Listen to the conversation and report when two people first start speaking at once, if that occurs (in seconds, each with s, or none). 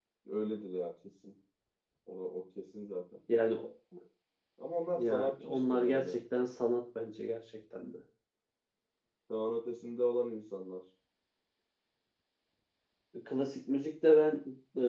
5.0 s